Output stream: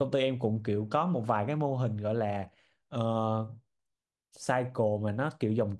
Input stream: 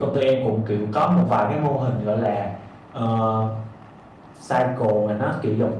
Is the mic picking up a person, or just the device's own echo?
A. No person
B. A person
A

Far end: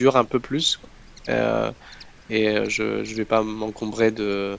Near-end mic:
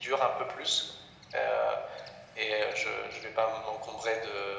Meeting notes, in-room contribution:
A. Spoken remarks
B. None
B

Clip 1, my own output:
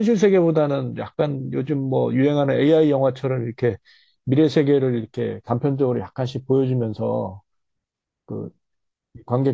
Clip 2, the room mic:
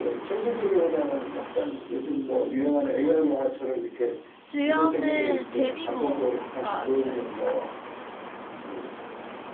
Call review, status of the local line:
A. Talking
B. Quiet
A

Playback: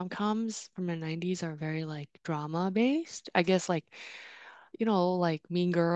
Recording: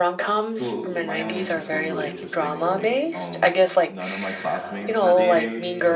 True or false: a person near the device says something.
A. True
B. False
A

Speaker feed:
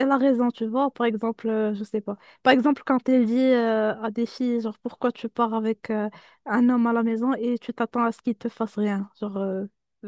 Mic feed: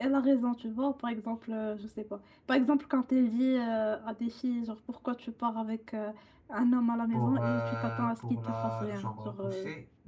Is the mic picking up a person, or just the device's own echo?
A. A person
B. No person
A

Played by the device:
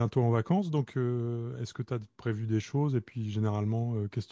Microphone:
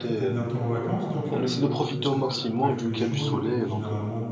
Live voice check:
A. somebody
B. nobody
A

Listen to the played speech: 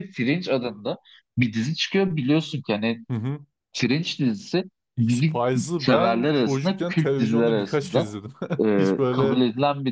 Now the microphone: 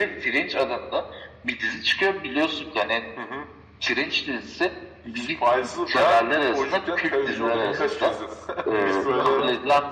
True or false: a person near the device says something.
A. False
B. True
B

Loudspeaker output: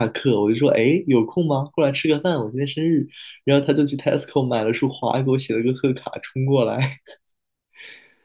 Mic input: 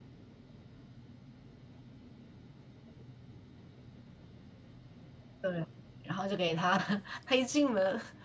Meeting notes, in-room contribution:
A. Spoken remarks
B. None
A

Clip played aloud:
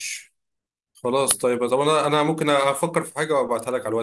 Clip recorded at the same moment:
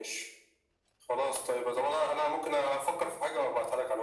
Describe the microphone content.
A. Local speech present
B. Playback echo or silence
B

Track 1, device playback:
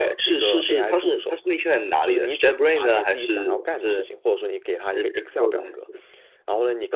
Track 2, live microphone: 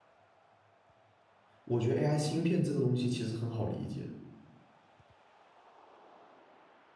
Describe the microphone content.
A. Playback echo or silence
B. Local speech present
B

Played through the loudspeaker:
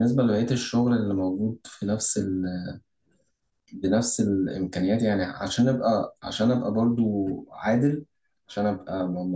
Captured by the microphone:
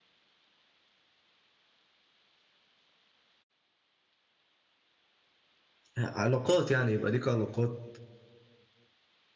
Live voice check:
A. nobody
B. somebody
B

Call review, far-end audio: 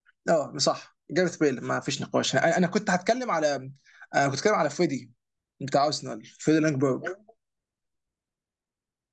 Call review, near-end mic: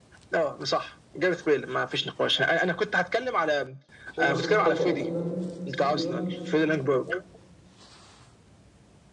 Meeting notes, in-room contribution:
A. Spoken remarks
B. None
A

